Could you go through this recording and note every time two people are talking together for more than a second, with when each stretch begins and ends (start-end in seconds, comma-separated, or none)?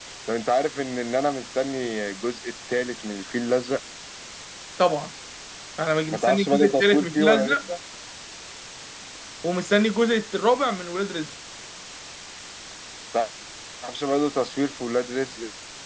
6.1-7.6